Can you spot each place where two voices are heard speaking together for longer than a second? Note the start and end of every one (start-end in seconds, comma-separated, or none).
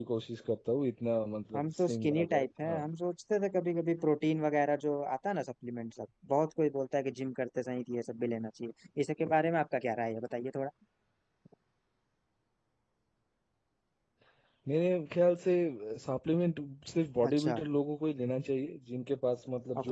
1.6-2.8